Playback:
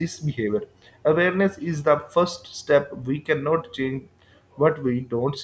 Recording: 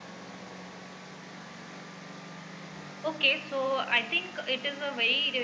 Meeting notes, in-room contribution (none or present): present